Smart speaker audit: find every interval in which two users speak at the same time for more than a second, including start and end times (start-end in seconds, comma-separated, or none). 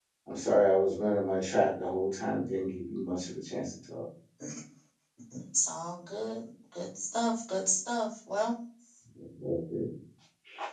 none